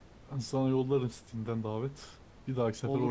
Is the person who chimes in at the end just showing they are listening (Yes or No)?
No